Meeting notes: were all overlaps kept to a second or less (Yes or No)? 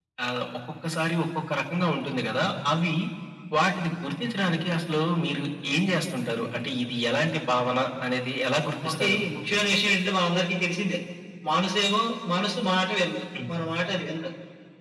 Yes